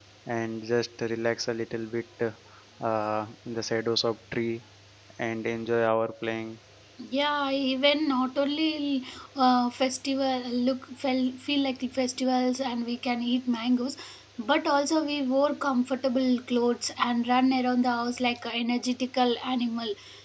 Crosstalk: none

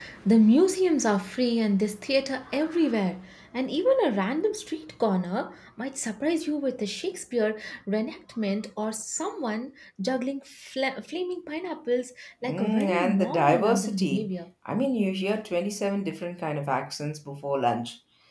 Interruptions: present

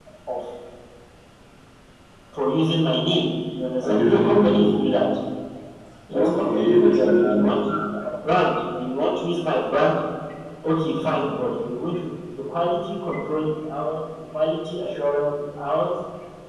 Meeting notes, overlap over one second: present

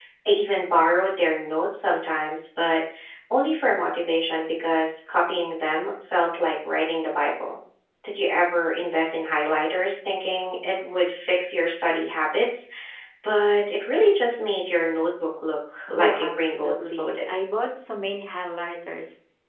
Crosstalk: present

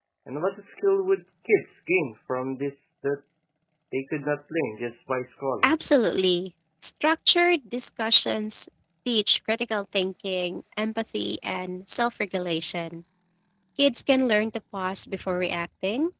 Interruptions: none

